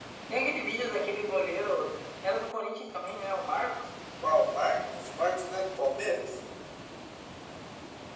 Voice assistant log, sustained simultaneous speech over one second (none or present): none